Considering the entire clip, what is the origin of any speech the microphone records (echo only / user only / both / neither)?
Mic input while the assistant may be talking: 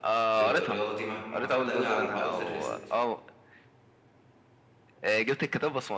both